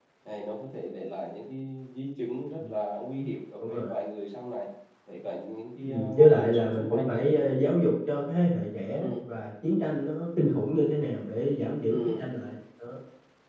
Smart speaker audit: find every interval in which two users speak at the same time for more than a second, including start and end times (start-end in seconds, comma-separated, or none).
5.8-7.2